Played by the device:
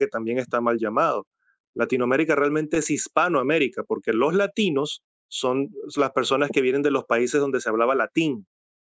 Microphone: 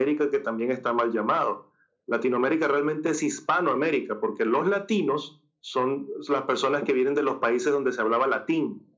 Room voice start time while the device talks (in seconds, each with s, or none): none